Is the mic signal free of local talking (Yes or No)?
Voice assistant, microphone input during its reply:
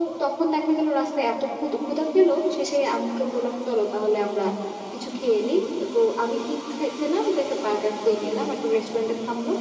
Yes